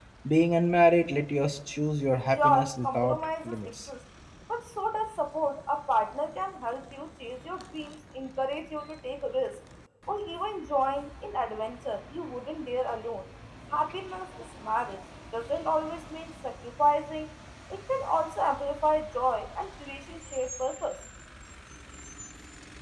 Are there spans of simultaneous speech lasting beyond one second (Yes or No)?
Yes